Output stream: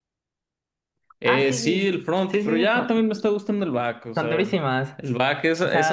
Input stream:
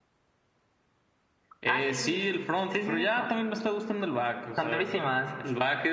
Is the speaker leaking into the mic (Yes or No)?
Yes